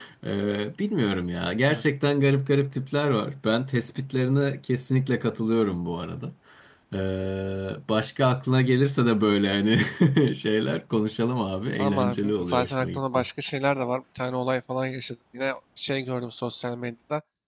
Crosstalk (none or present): present